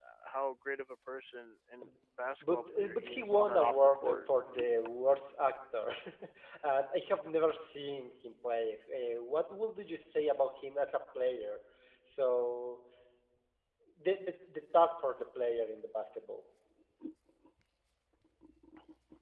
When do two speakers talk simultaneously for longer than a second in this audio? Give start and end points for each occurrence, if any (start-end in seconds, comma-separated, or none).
2.4-4.2